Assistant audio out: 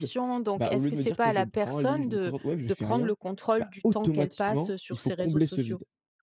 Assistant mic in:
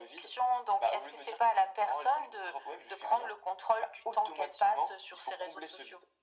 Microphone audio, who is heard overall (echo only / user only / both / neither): echo only